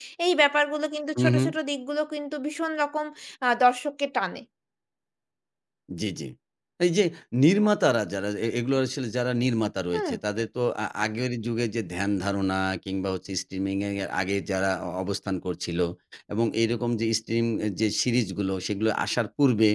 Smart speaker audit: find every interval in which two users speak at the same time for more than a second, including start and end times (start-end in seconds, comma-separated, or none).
none